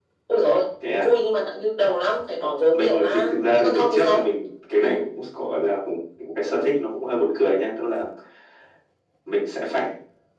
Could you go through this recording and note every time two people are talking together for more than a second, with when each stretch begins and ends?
2.7-4.2

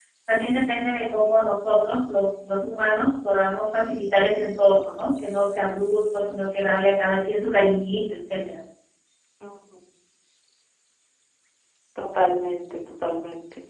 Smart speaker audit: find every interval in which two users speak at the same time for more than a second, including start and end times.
none

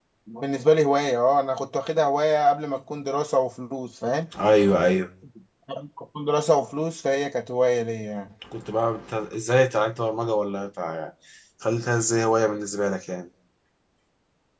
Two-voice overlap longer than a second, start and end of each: none

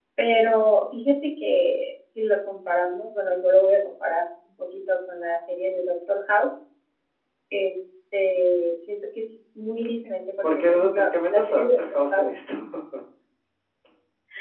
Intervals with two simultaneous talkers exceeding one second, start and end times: 10.7-12.3

